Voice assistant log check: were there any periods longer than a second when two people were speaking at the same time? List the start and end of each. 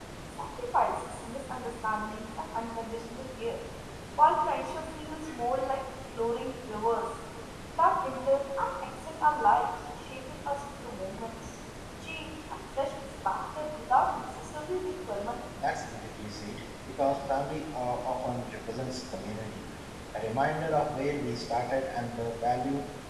none

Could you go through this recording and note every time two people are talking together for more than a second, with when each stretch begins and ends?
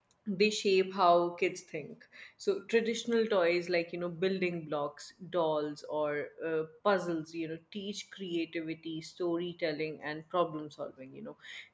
none

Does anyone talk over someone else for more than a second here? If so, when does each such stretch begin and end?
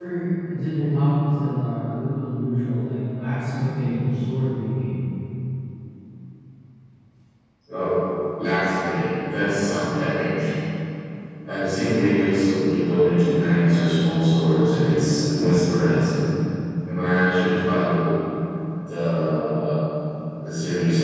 none

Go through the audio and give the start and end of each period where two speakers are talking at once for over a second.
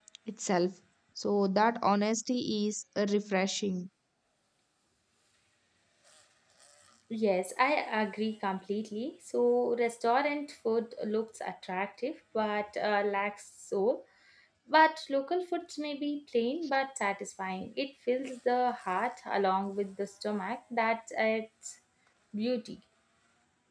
none

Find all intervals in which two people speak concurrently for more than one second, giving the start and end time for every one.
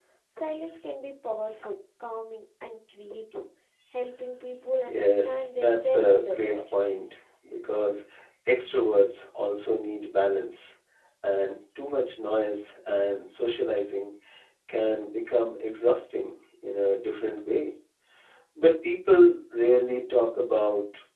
4.9-6.6

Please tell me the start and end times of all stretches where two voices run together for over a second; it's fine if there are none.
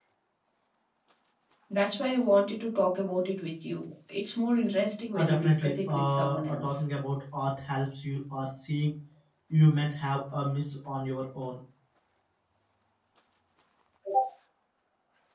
5.2-6.8

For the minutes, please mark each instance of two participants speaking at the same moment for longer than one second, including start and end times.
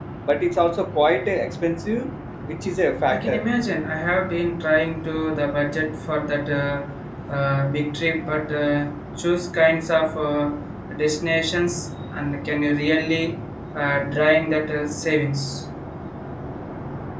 none

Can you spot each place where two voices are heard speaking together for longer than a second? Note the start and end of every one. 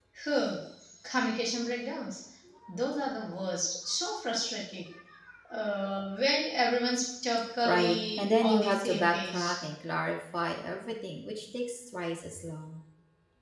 7.6-9.5

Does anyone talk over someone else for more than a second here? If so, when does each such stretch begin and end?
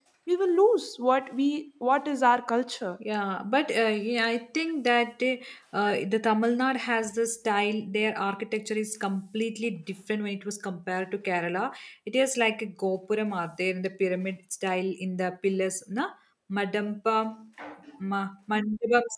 none

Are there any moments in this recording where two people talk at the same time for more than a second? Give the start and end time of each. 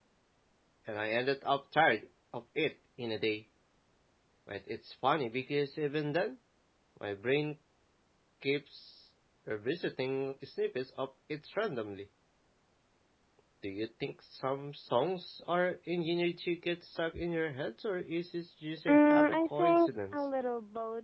18.9-20.2

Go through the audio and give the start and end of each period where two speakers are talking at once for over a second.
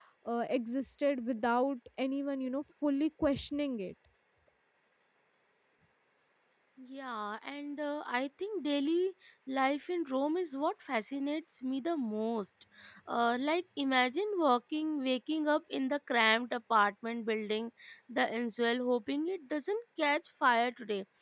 none

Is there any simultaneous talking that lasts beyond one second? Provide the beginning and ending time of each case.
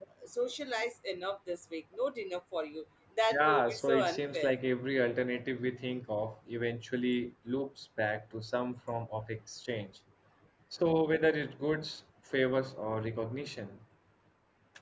3.3-4.5

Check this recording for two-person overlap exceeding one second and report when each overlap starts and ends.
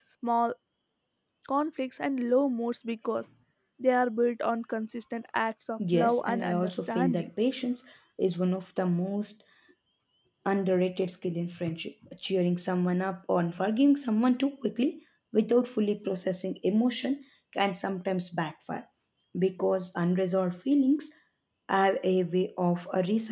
5.9-7.3

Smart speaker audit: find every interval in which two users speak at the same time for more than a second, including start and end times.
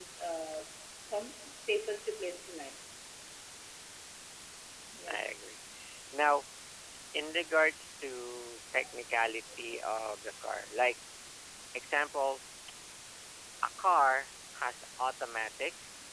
none

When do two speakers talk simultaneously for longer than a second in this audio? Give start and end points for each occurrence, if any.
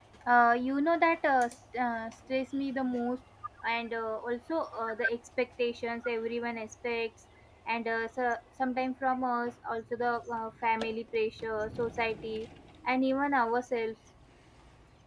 none

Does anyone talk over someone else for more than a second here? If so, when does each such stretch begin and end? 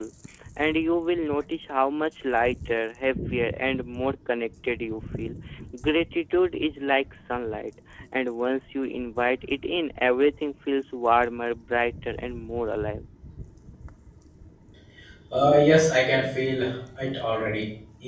none

